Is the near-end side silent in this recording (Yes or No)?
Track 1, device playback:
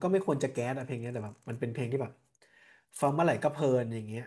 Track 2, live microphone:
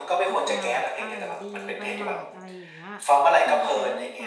No